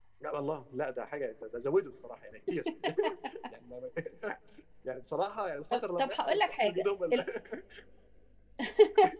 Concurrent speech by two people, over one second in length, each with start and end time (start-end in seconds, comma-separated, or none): 5.7-7.2